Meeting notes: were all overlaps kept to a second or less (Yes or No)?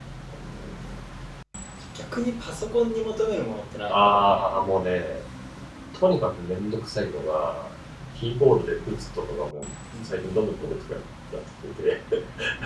Yes